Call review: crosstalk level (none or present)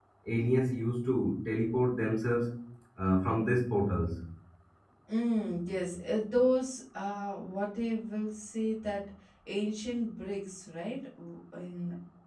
none